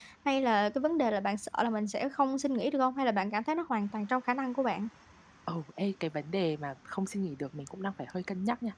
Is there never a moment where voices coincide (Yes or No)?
Yes